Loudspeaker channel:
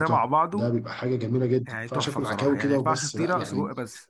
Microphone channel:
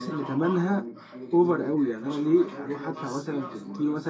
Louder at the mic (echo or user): user